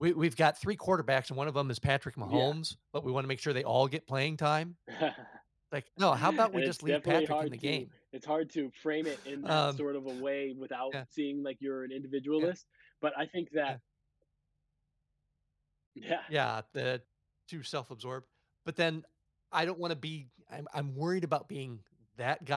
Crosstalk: present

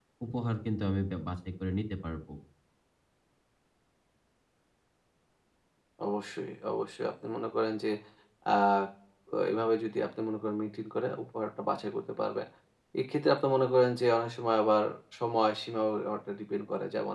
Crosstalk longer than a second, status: none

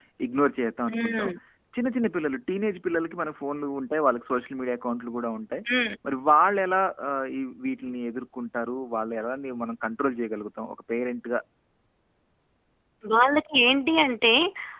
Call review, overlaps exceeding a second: none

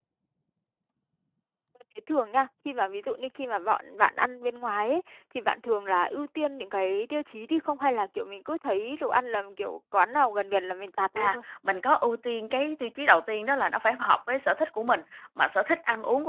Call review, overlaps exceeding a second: none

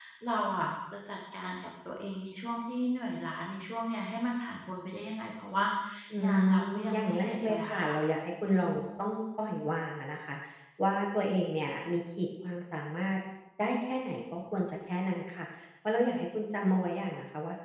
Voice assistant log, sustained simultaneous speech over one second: present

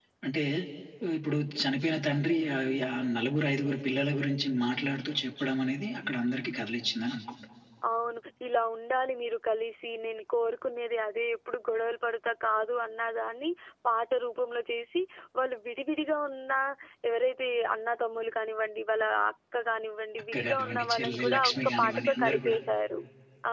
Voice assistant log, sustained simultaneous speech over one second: present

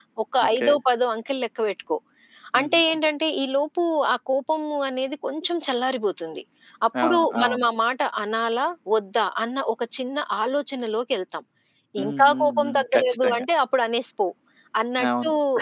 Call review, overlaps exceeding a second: present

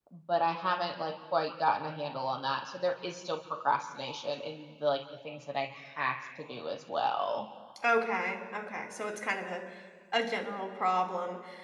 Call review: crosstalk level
none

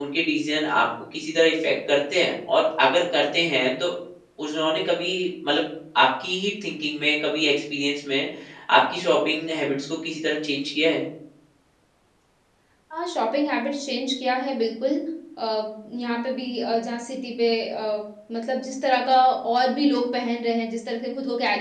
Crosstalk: none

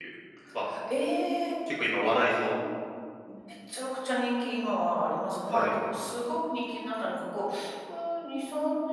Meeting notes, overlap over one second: none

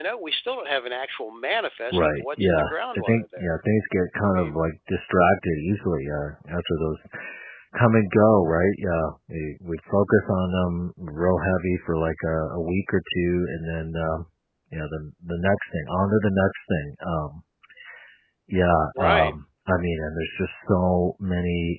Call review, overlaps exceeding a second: present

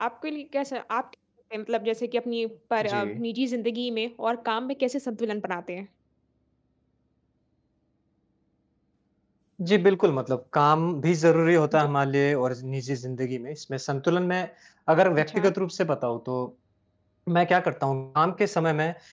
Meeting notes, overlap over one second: none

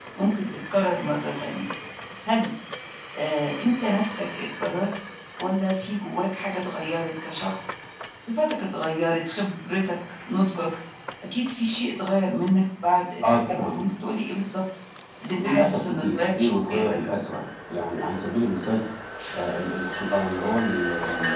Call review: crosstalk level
present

